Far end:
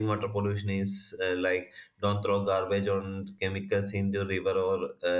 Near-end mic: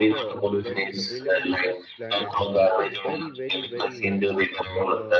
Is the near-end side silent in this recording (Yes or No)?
No